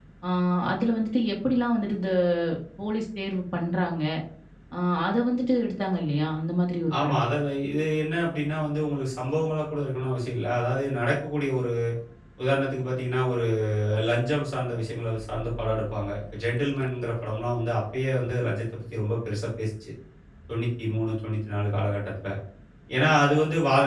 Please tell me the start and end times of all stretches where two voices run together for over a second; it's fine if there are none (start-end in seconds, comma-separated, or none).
none